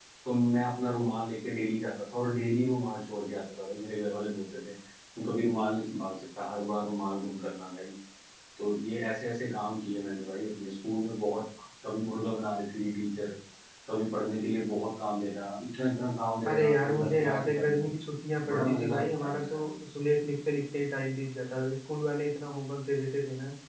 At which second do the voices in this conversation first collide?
16.5 s

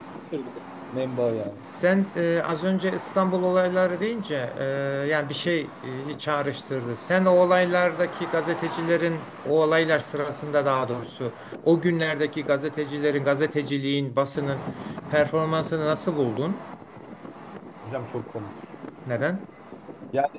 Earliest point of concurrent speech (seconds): none

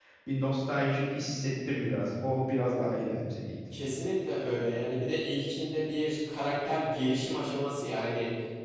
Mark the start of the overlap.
none

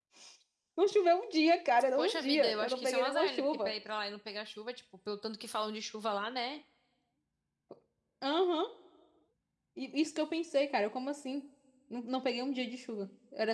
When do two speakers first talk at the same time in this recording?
2.0 s

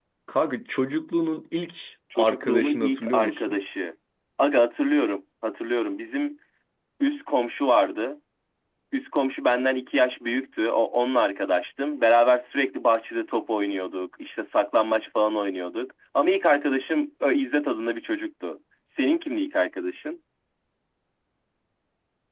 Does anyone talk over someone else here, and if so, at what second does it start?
2.1 s

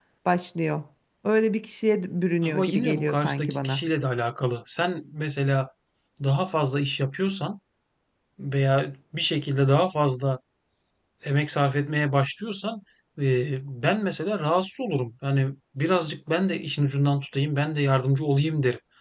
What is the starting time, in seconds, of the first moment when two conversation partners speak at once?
2.4 s

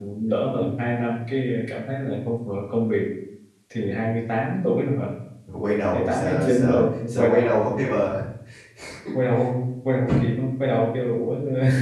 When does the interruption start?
5.9 s

